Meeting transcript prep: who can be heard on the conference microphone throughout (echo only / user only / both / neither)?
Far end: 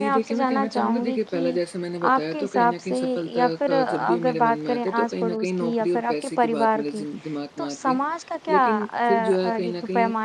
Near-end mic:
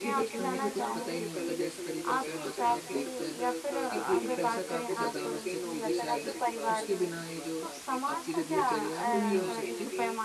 both